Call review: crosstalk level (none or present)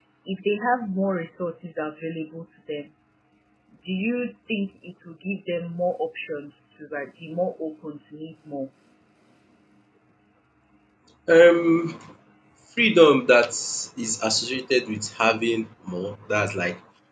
none